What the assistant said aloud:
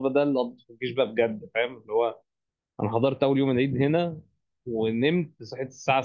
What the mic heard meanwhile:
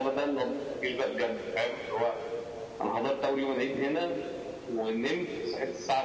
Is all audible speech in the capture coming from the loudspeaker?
Yes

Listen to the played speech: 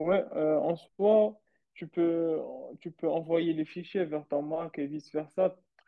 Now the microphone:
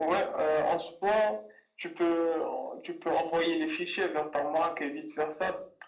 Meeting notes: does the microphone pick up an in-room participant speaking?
No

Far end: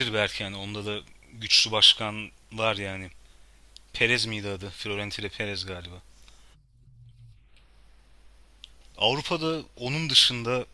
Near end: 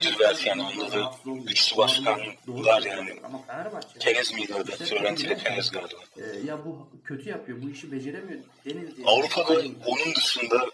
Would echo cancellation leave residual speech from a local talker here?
Yes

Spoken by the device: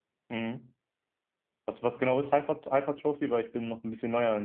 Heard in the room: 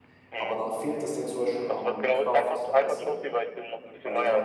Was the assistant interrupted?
Yes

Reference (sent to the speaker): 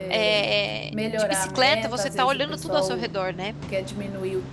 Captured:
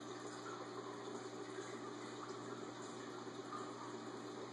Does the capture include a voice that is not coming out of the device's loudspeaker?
No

